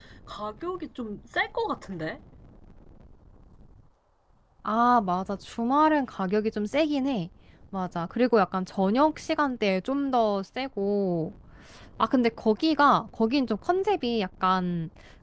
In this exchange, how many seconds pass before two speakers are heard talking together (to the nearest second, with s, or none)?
none